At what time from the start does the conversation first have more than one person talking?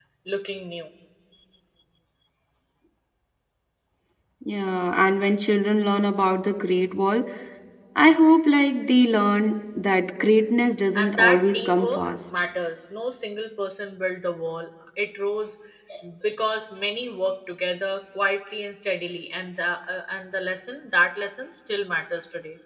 10.9 s

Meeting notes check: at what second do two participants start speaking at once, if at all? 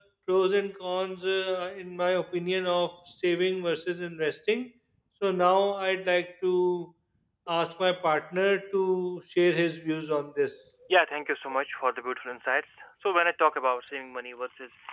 none

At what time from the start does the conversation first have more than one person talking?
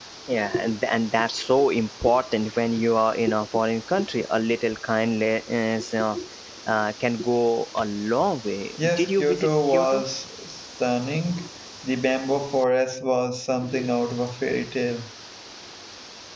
8.8 s

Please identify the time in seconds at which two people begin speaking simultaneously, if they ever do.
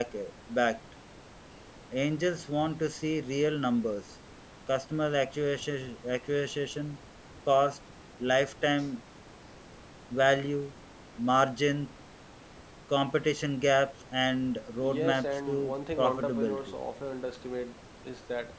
14.8 s

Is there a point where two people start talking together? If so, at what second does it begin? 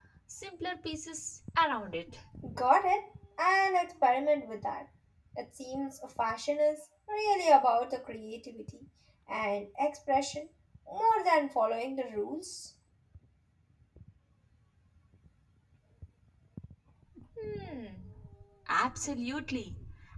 none

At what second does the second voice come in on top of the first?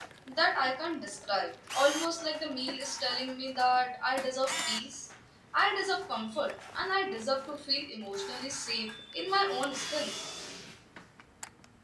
none

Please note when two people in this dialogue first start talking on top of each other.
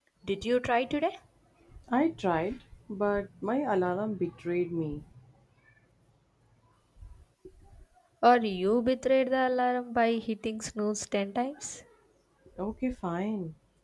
none

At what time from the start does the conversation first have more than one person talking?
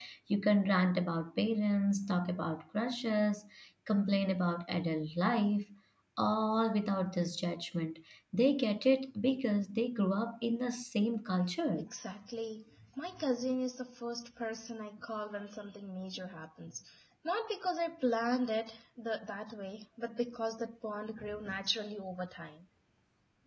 none

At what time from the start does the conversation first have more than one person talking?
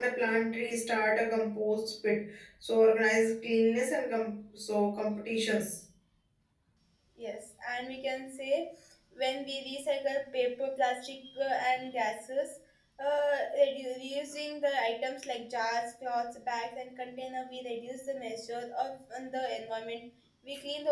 none

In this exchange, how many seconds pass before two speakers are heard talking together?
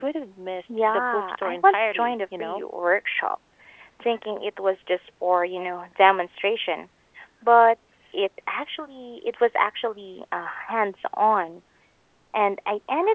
0.7 s

